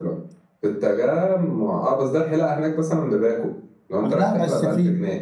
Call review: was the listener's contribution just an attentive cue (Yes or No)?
No